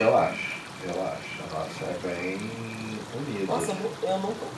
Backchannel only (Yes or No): No